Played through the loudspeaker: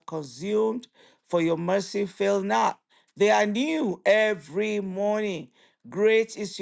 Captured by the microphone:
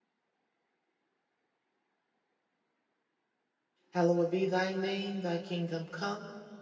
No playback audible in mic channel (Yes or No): Yes